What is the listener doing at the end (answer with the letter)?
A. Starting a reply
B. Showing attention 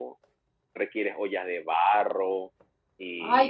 A